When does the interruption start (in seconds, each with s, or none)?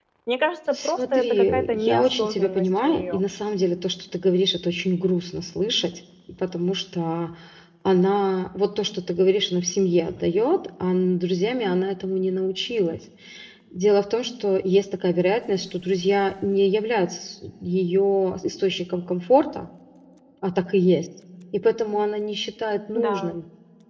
0.7 s